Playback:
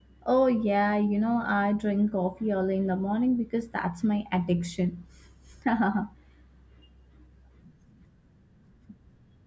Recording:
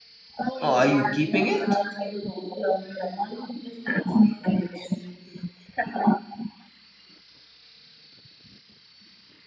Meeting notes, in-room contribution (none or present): present